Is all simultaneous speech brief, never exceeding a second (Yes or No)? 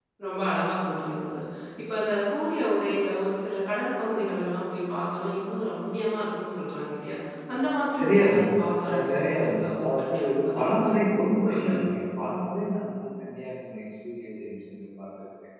No